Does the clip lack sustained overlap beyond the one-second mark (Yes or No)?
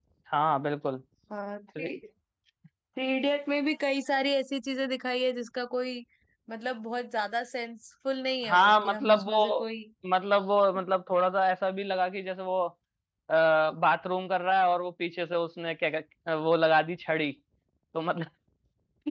No